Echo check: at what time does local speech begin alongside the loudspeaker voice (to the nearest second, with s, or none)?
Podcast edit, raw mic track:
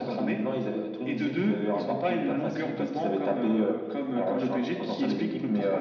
none